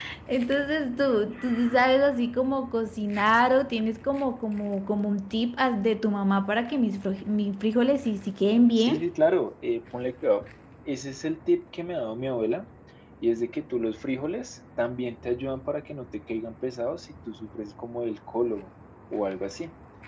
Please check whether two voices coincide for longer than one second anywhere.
No

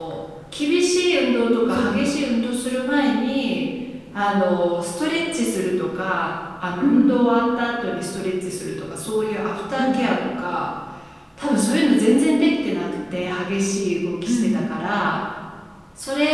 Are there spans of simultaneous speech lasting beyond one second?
No

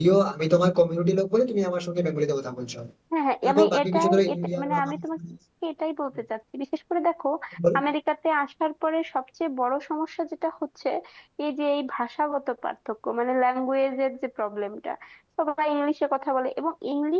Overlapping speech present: Yes, from 3.4 s

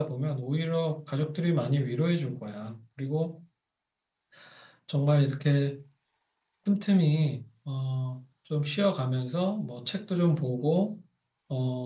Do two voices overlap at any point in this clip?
No

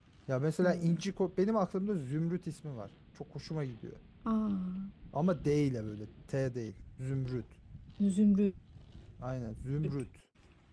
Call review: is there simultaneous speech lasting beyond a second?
No

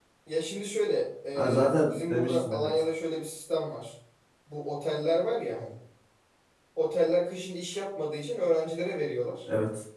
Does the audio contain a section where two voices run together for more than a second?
Yes, from 1.4 s

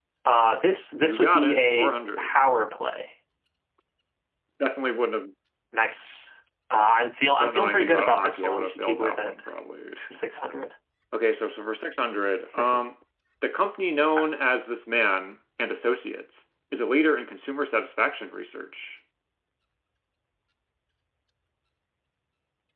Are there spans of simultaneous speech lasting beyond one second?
Yes, from 1.0 s

